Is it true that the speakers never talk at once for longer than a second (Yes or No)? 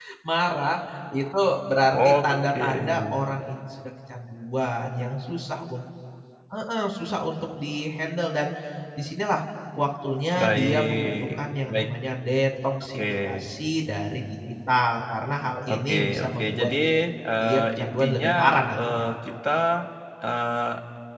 No